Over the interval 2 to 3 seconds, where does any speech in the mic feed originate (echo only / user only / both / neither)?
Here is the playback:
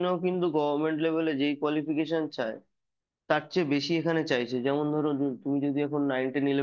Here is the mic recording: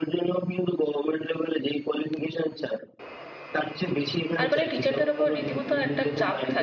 echo only